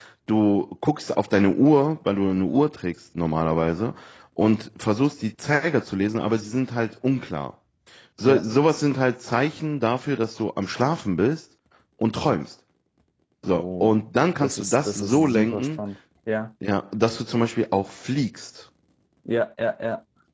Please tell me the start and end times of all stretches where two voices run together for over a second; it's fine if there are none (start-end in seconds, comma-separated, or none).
14.4-15.8